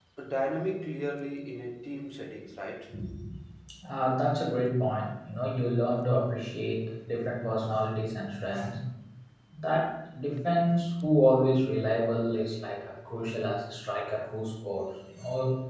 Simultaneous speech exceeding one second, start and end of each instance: none

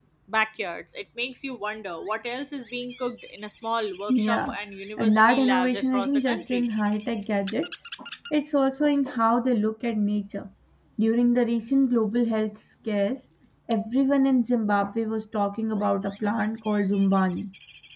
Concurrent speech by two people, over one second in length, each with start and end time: 5.0-6.6

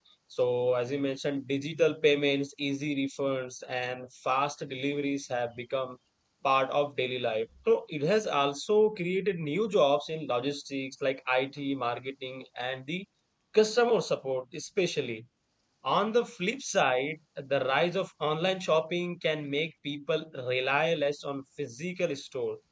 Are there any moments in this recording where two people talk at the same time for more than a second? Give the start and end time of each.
none

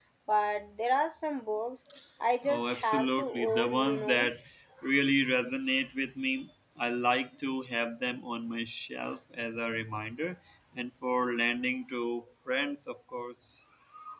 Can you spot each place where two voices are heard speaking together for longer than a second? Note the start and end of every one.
2.4-4.3

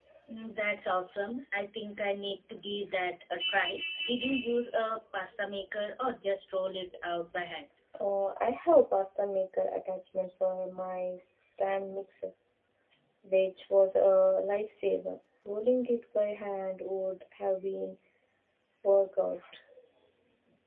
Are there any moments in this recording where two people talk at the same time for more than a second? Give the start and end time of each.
none

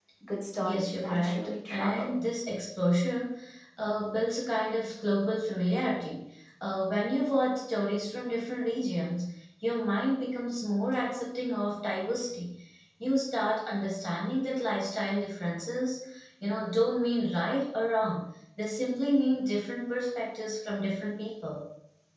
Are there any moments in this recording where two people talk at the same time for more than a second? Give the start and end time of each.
0.6-2.1

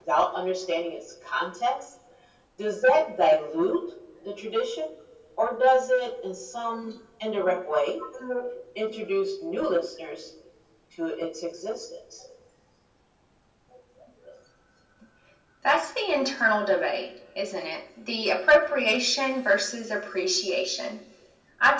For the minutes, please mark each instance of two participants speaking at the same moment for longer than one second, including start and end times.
none

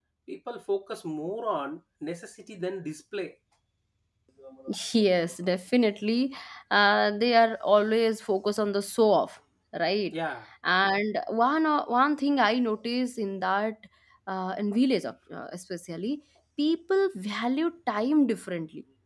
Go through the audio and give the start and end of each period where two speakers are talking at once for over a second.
none

